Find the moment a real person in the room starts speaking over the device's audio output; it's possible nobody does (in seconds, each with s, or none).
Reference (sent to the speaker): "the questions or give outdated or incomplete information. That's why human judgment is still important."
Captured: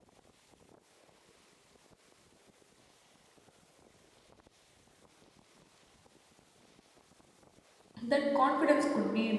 8.0 s